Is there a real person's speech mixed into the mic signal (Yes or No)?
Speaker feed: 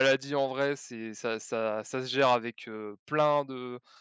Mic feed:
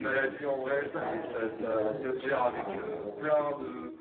Yes